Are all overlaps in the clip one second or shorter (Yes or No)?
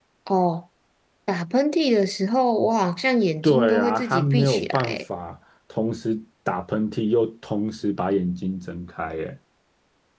No